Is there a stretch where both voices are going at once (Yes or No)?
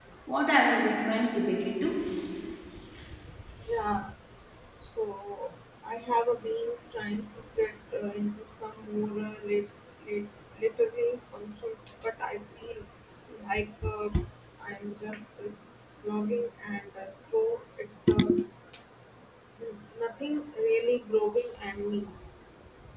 No